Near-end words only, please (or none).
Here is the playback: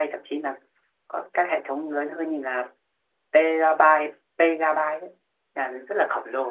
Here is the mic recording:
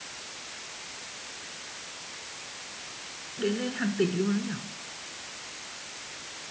đến lên hàng tỷ luôn đó nhở